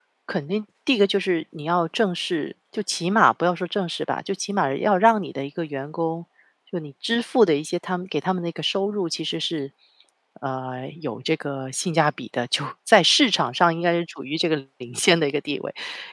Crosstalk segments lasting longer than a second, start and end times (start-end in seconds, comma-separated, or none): none